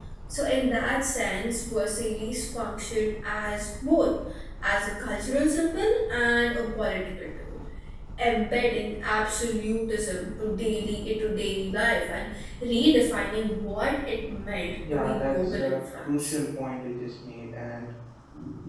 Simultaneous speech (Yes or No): Yes